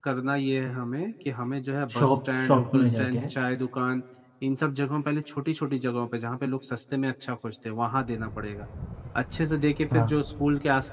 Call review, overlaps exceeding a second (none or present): present